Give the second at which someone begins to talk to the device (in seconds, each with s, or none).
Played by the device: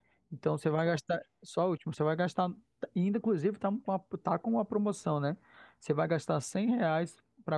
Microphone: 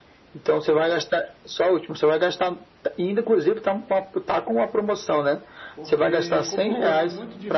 5.7 s